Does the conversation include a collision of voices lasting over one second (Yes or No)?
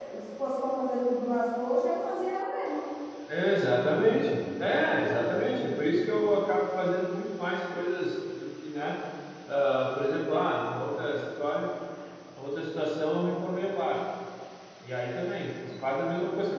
No